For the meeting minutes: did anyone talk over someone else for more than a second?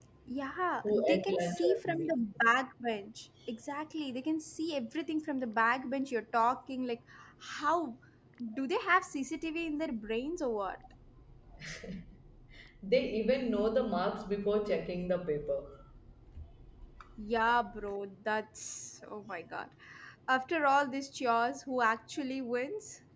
Yes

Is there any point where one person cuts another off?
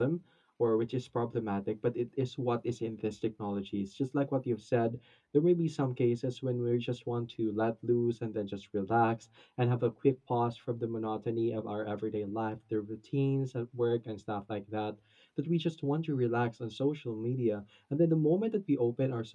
No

